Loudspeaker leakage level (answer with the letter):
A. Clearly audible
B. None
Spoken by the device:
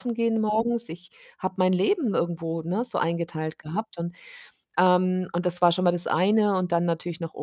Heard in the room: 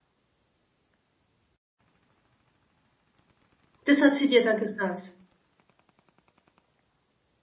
B